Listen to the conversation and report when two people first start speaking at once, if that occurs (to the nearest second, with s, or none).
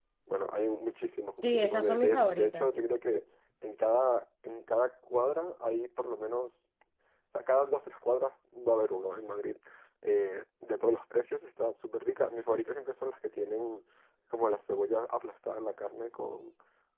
1 s